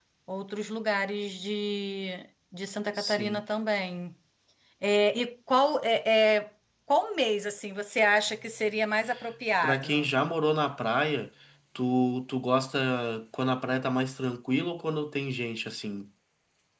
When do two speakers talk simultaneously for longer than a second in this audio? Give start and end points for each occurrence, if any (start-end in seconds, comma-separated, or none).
none